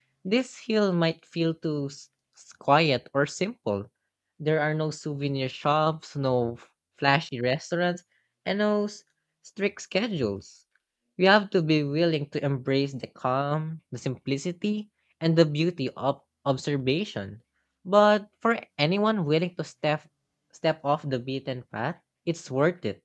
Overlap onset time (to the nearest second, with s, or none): none